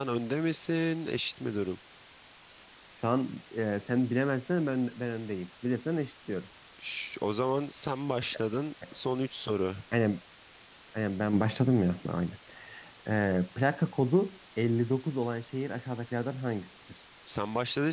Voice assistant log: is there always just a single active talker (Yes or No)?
Yes